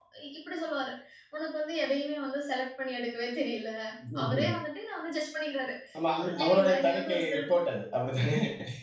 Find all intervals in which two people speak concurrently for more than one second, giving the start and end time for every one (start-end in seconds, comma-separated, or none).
6.2-7.4